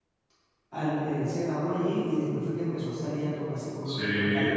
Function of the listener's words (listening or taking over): taking over